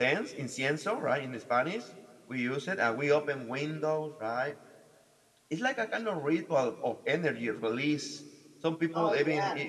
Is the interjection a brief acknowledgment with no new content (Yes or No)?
Yes